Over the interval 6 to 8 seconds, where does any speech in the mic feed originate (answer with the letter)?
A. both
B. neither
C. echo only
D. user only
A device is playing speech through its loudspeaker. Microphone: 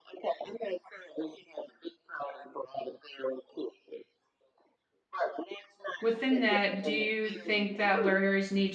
A